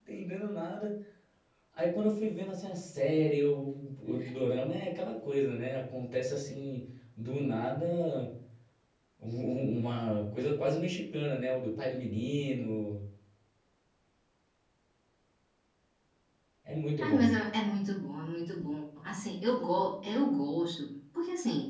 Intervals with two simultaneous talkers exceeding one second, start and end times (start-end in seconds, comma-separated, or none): none